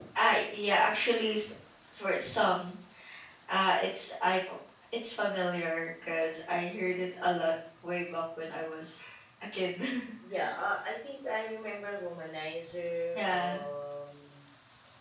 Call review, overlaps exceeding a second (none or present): none